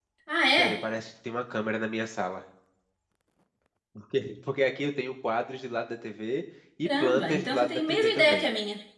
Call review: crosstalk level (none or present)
present